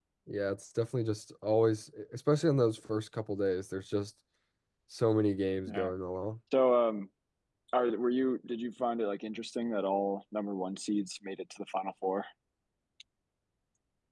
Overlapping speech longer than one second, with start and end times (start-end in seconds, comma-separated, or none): none